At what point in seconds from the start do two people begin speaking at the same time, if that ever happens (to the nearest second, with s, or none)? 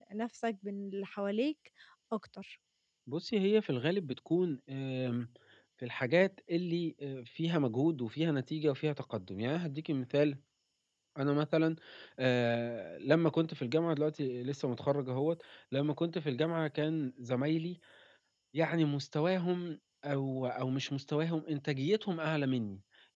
none